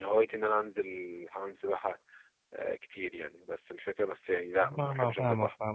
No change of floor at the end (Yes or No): No